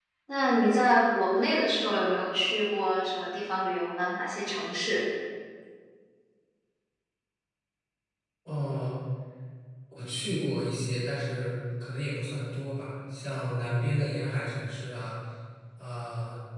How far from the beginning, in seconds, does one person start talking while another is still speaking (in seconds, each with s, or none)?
none